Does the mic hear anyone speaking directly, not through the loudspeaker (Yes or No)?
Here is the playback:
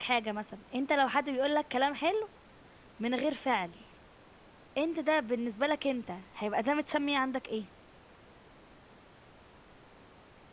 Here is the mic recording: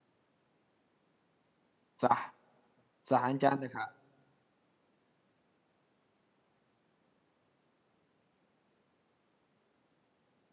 Yes